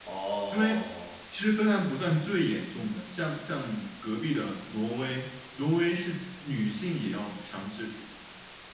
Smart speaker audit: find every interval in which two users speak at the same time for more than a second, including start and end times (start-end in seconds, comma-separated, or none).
none